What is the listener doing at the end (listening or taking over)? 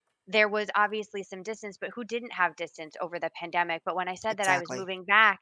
listening